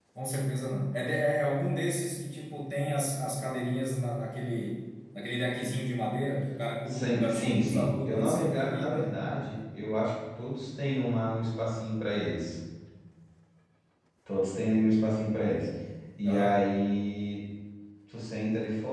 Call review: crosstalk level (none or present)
present